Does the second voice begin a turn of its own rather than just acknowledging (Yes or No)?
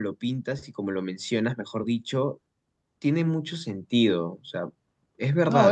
Yes